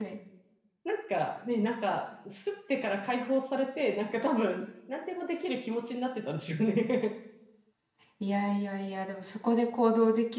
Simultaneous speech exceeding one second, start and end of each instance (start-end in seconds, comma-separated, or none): none